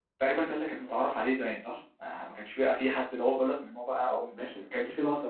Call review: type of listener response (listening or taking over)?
taking over